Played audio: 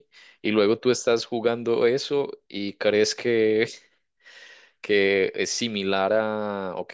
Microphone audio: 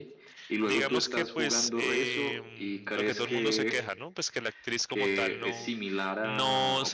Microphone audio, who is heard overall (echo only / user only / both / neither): both